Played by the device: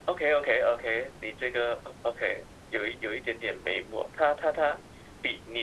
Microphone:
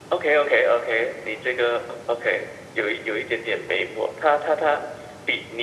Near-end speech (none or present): none